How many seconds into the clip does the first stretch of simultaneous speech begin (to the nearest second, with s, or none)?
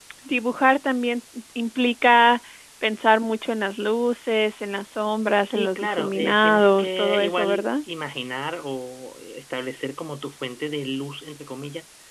6 s